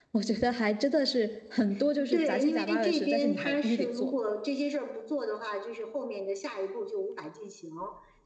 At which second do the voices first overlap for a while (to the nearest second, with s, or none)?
2 s